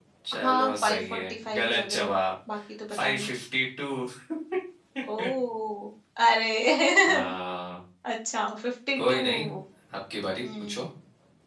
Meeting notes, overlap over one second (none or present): present